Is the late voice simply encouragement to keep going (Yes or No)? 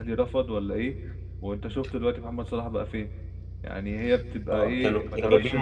No